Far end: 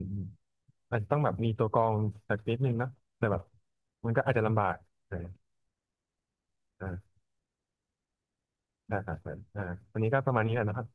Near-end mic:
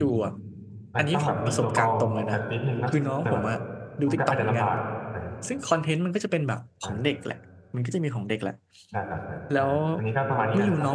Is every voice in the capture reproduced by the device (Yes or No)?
No